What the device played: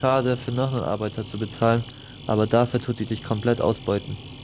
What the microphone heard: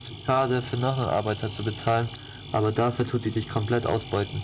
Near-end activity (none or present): none